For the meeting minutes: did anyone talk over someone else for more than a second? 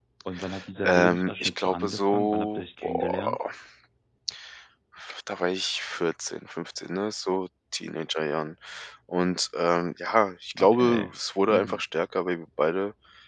Yes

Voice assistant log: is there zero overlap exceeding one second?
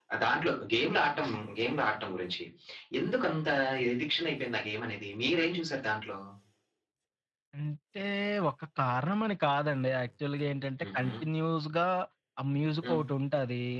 Yes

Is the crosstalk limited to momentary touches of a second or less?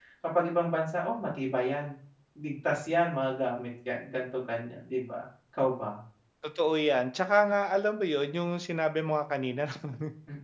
Yes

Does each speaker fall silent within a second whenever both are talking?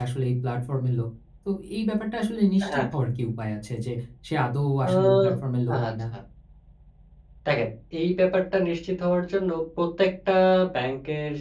Yes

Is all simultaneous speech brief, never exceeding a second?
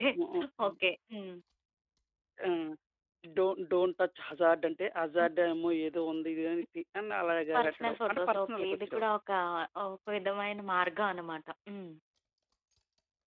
No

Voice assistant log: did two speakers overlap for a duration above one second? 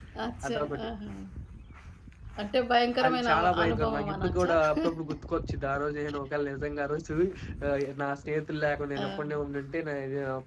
Yes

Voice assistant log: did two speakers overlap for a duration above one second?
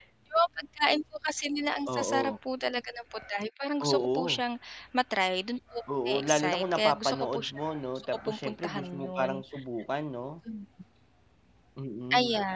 Yes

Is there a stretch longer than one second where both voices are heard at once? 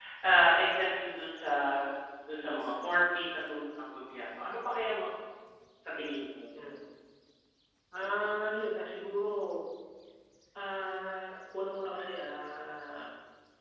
No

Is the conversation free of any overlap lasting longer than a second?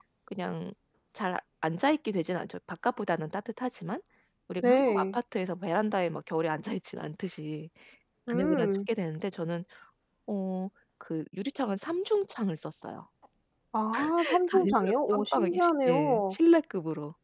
No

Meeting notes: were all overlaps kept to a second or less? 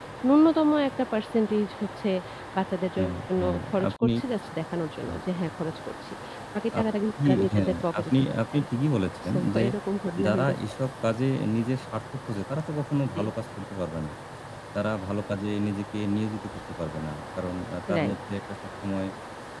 No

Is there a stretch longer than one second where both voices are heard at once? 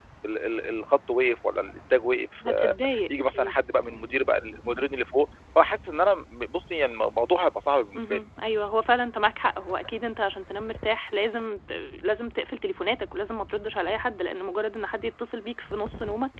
No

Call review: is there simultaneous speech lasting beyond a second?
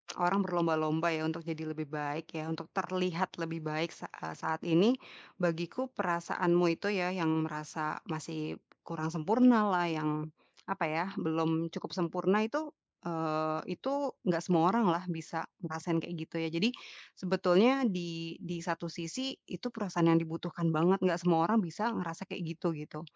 No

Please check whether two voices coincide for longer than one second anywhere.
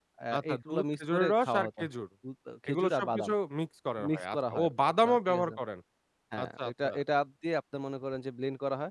Yes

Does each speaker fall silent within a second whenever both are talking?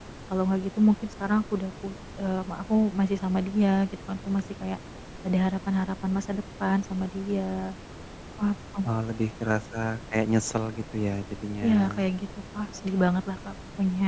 Yes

